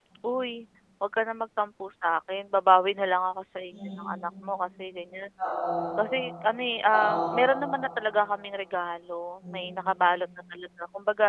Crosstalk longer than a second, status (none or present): none